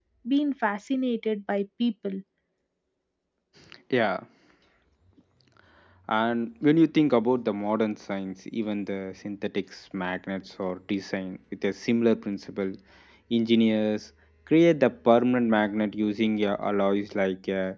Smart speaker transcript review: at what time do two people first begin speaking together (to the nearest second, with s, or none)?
none